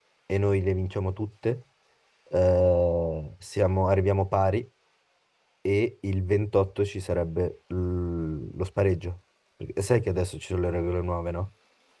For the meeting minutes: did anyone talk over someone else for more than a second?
No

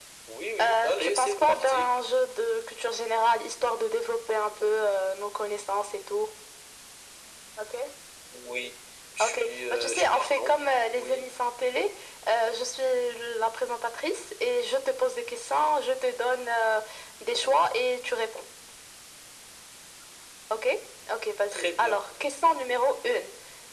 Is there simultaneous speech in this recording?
Yes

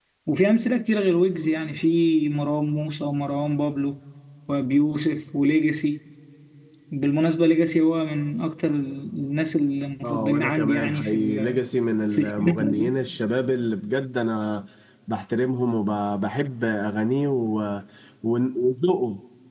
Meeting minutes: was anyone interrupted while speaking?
Yes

